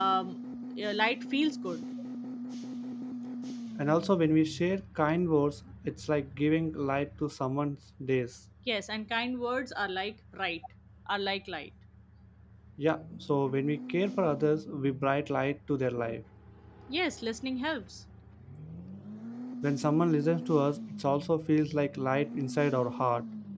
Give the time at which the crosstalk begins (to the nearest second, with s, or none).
none